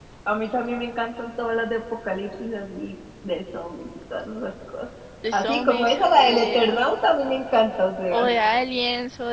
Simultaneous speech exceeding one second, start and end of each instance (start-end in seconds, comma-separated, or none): 5.3-6.8